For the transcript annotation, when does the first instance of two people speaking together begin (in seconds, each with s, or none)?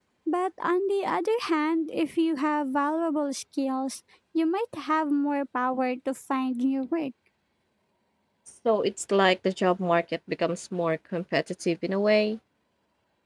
none